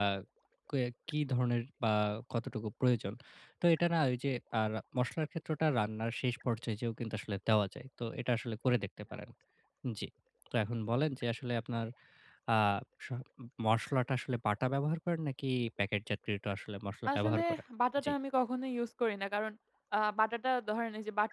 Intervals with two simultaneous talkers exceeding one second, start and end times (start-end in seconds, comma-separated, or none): none